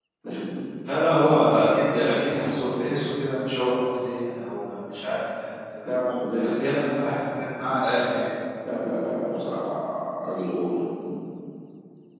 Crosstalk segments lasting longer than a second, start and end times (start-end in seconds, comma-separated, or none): none